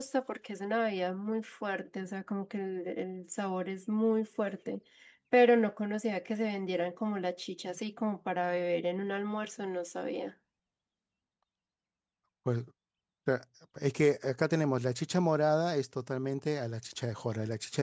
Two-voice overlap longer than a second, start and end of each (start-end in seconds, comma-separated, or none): none